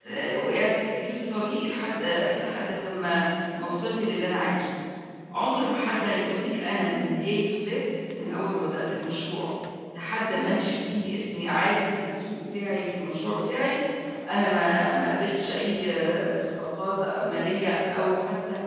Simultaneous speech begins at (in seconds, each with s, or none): none